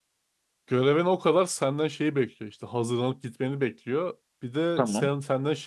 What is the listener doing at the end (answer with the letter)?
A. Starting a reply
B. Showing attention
B